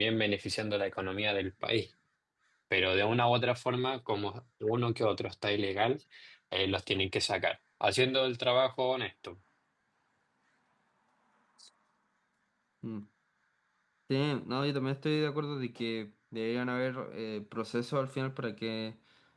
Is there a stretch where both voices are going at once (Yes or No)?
No